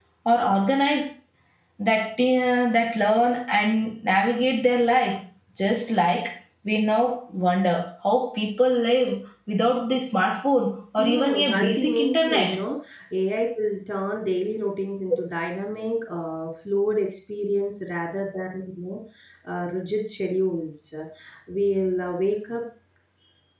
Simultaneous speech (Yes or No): Yes